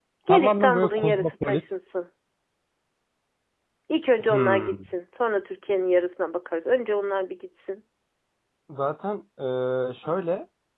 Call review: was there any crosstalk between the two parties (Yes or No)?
Yes